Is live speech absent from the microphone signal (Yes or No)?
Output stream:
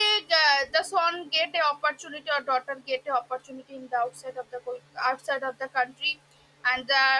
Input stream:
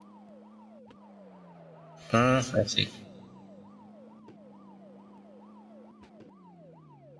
No